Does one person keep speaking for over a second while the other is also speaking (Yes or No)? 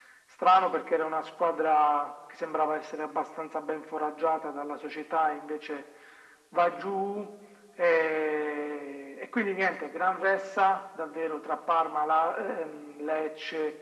No